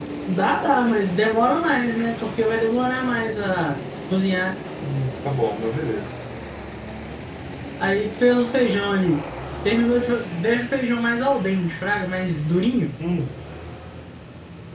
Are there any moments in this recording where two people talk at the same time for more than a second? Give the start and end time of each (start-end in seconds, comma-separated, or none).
none